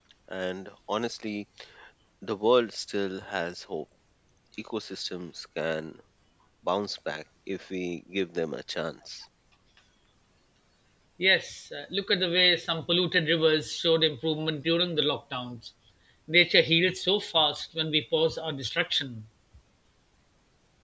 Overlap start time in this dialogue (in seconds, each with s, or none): none